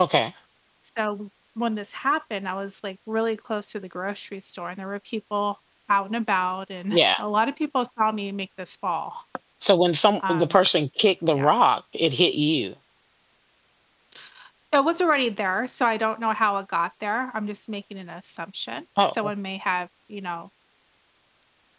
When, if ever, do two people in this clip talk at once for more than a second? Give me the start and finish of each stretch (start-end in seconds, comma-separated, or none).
none